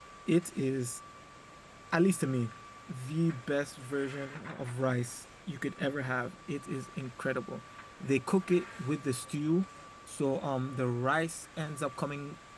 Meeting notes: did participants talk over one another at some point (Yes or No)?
No